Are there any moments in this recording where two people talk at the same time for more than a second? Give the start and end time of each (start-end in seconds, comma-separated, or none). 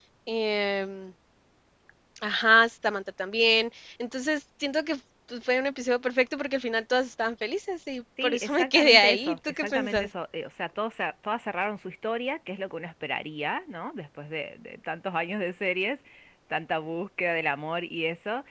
8.2-10.1